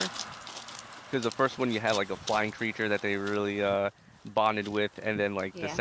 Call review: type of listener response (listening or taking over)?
listening